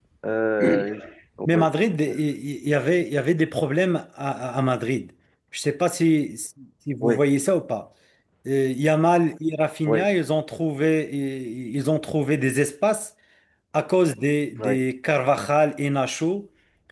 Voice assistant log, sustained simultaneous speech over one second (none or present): none